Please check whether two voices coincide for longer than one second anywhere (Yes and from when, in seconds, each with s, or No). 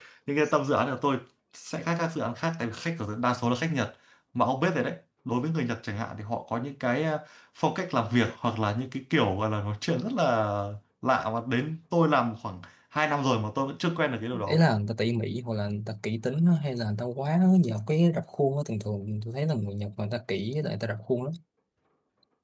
No